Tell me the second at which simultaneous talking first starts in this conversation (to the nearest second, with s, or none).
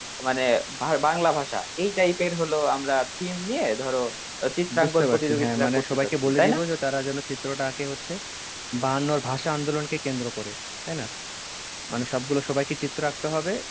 5 s